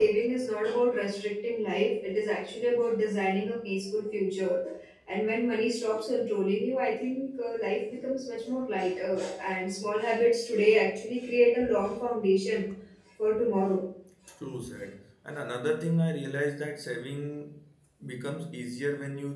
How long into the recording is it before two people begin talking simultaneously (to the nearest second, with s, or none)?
none